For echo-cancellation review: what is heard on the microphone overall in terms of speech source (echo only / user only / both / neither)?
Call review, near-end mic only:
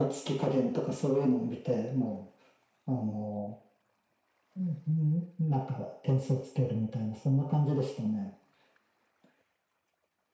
echo only